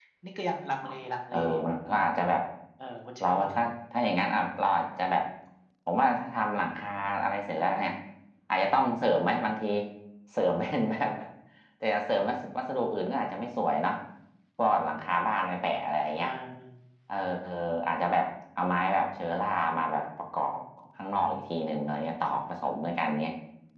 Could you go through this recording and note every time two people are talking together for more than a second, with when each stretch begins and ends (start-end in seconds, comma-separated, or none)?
none